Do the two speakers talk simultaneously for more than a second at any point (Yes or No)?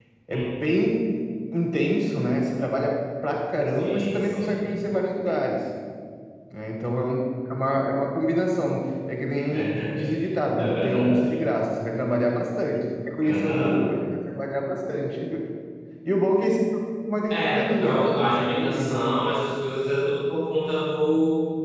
Yes